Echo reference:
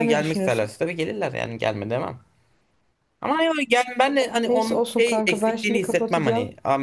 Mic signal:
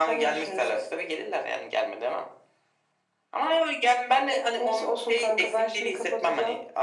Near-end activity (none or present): none